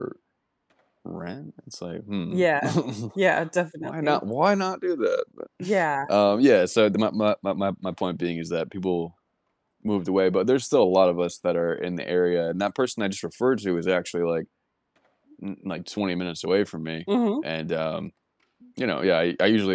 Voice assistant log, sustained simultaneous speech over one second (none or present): none